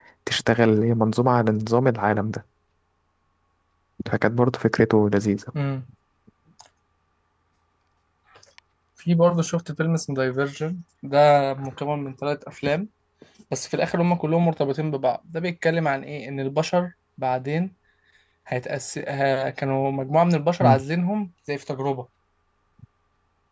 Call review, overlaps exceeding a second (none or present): none